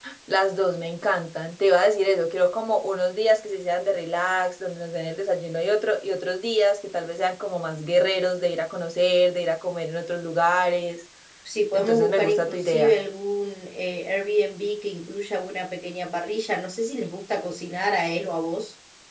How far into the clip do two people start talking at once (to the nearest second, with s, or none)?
12 s